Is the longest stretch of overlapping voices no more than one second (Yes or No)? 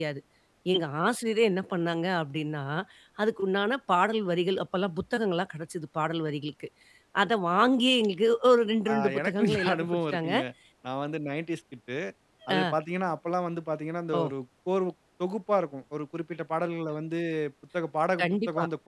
No